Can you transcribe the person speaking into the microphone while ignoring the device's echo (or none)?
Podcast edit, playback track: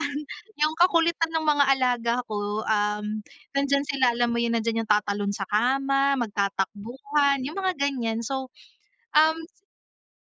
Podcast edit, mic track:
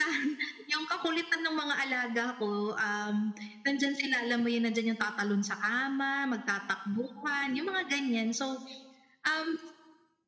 none